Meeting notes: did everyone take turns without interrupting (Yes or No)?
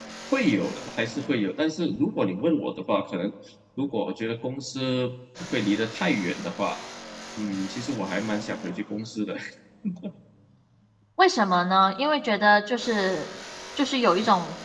Yes